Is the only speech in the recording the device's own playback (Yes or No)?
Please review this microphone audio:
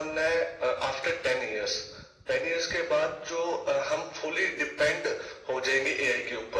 Yes